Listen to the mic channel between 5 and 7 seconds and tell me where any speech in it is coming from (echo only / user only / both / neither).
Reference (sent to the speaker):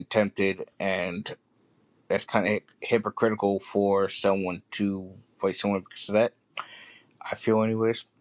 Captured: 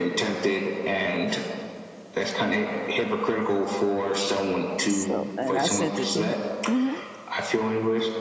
both